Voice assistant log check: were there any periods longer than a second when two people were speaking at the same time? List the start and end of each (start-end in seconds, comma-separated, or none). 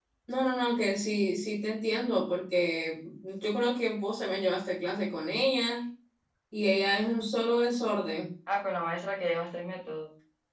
none